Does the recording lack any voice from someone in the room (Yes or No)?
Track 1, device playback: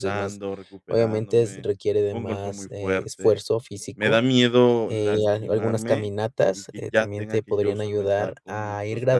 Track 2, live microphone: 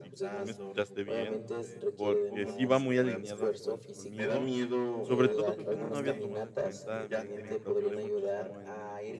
No